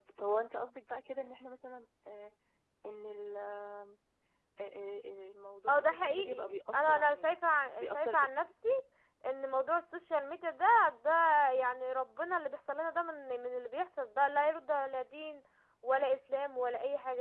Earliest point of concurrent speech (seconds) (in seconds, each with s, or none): 5.7 s